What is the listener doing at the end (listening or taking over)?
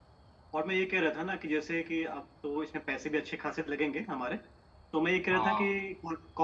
listening